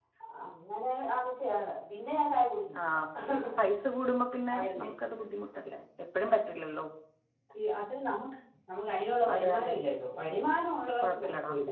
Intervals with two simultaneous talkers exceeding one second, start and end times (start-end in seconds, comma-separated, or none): none